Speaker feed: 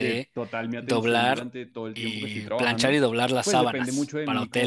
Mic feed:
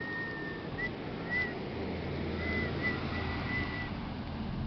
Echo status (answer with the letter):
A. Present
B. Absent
B